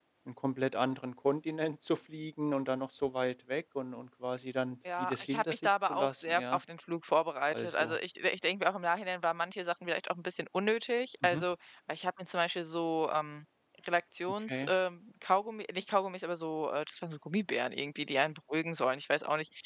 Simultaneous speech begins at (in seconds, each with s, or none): 5.0 s